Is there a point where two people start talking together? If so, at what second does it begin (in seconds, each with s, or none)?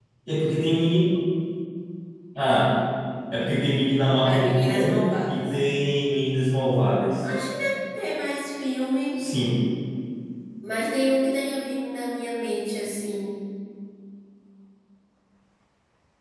4.2 s